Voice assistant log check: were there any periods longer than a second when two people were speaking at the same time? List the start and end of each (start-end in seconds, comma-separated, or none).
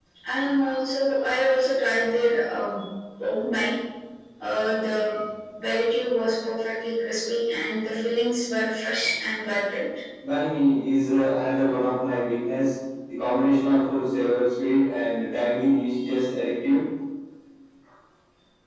none